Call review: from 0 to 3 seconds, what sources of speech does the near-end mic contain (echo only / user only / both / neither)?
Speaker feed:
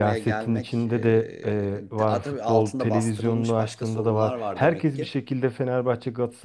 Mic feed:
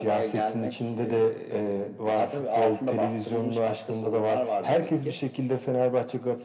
echo only